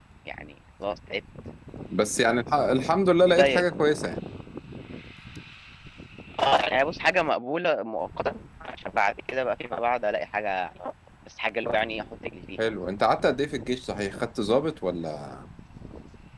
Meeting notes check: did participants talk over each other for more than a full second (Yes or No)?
No